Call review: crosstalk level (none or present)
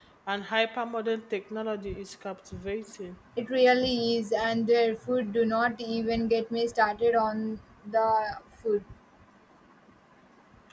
none